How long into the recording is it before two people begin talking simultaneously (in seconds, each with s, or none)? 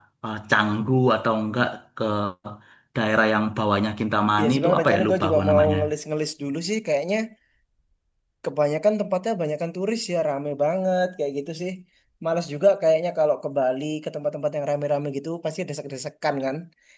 4.4 s